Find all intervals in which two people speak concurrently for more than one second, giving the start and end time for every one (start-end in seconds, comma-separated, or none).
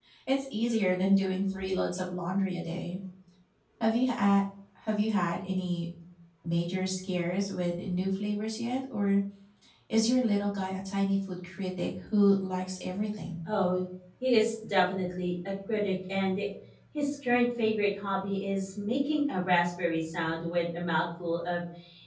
none